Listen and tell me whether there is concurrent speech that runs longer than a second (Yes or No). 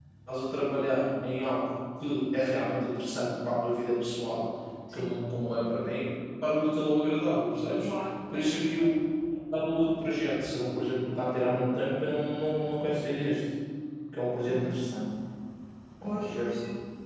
No